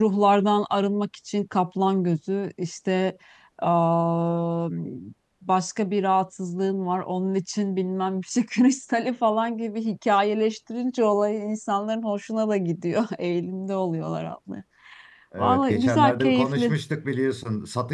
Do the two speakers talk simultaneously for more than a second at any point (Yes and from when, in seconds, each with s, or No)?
Yes, from 15.4 s